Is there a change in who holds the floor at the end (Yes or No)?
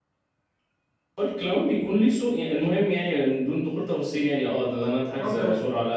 No